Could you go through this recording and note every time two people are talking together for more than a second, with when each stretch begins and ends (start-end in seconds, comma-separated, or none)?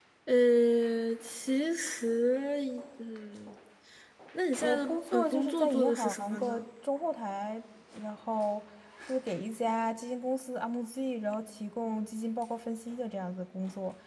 4.6-6.6